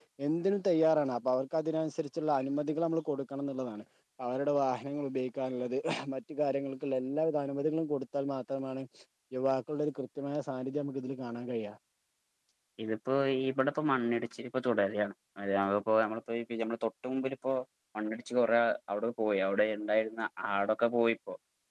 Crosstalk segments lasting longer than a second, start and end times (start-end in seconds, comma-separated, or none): none